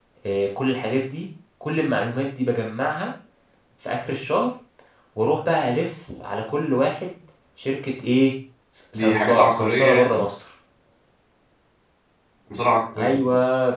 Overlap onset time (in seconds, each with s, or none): 8.9 s